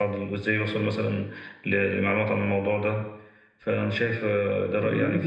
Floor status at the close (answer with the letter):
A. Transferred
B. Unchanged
A